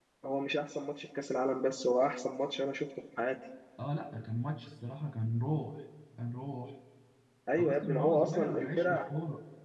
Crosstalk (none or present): present